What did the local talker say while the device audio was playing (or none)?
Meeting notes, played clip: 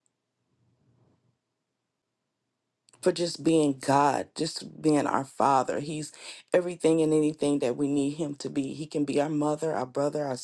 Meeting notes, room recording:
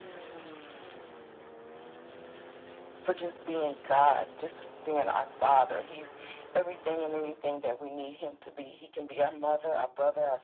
none